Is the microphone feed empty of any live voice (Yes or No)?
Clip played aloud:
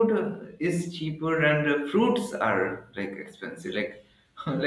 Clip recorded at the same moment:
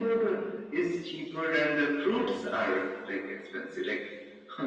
Yes